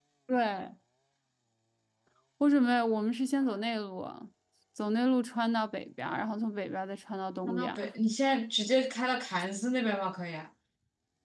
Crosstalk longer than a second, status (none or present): none